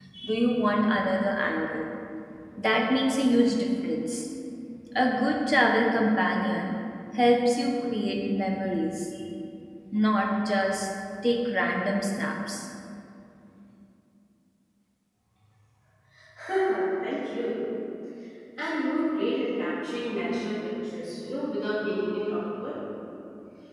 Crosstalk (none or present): none